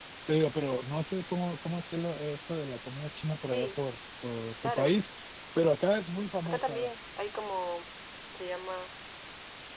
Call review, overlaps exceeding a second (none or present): none